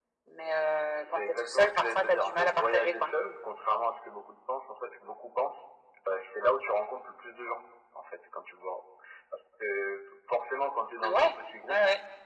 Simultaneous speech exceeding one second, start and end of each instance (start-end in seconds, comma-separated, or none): 0.9-3.1